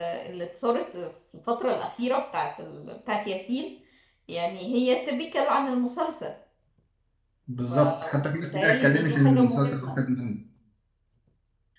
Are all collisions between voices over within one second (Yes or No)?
No